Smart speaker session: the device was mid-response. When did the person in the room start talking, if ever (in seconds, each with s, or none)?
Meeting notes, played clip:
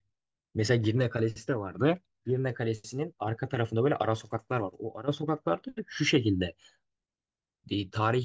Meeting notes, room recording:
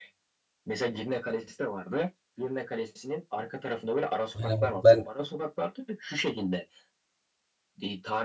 4.3 s